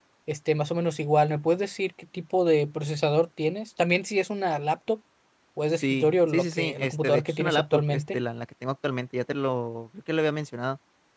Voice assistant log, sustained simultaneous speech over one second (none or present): present